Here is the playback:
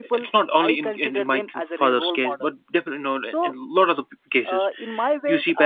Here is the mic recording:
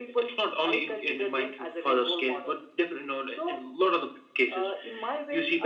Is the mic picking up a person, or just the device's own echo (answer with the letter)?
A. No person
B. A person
A